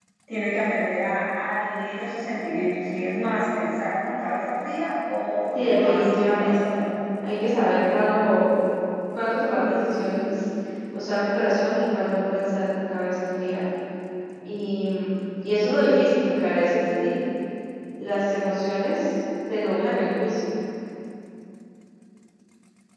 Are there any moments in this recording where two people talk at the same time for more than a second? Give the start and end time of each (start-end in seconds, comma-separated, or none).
5.6-6.8